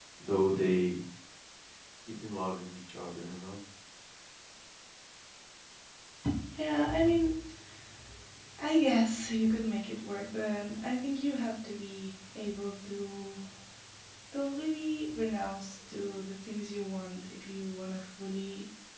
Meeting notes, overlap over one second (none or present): none